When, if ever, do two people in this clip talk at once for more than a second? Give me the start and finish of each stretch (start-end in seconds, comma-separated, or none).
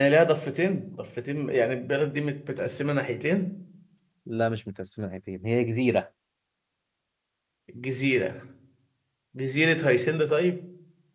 none